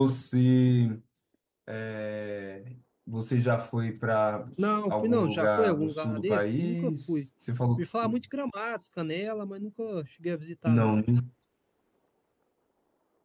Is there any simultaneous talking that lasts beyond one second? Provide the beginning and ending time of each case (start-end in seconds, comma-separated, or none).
4.9-7.2